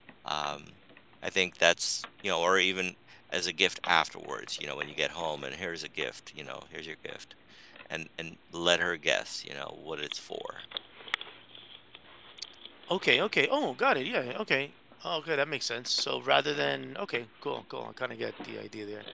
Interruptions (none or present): none